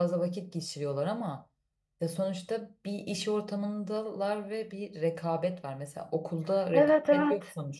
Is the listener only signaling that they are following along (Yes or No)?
Yes